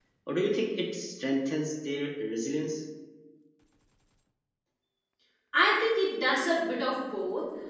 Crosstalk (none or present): none